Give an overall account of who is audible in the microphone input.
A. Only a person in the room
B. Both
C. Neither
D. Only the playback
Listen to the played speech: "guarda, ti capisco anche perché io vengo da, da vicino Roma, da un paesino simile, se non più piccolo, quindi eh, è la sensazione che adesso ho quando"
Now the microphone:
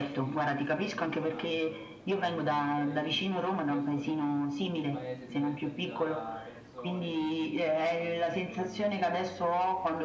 B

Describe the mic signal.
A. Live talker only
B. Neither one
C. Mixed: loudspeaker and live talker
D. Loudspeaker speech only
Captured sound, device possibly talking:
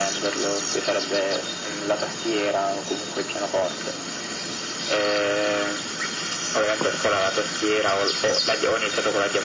D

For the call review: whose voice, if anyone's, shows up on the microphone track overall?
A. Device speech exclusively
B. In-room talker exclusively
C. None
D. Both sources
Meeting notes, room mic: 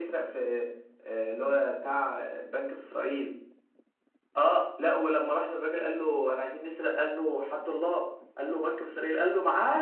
A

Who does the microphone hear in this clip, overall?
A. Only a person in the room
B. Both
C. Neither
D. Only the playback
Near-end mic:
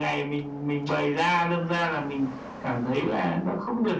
D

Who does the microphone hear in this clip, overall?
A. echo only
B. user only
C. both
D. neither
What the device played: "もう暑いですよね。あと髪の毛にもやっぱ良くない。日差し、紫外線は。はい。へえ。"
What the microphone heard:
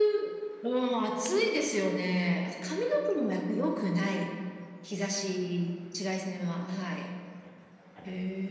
A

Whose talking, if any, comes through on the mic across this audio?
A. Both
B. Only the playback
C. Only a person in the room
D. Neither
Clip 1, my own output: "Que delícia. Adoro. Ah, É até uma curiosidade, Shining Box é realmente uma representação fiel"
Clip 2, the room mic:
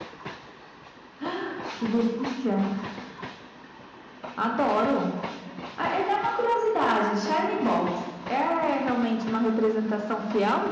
B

